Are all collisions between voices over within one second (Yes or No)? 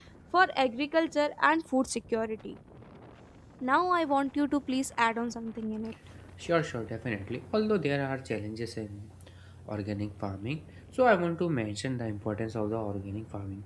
Yes